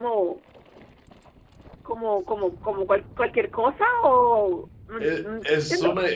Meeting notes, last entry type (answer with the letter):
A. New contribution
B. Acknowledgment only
A